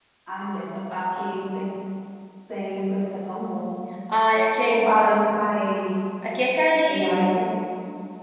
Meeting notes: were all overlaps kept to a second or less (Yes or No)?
Yes